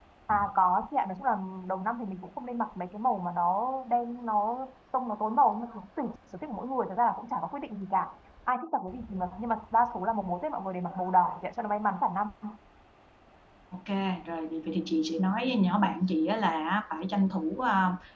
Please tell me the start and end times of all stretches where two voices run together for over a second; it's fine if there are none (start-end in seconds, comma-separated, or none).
none